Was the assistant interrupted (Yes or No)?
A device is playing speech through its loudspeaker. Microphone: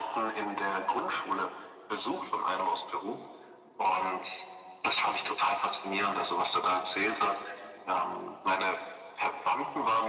No